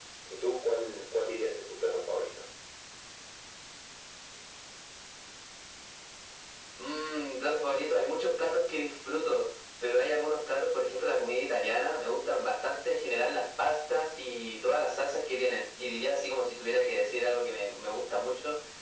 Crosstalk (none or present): none